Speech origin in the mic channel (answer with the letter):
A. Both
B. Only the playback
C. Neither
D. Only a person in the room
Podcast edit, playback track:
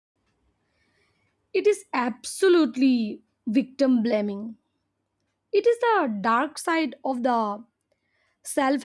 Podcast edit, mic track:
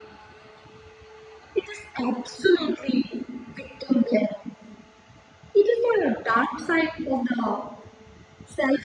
B